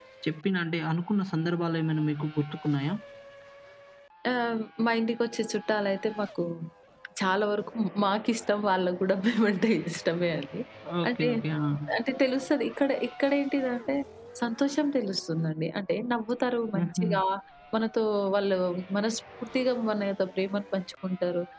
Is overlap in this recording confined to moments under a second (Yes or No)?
Yes